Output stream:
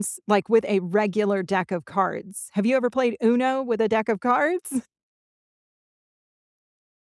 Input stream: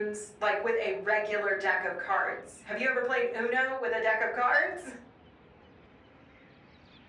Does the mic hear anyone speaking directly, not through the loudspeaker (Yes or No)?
No